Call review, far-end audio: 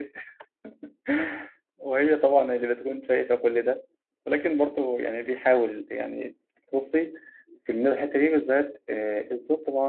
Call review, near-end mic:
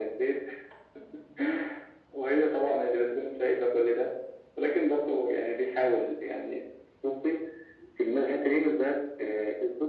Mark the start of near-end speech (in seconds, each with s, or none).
none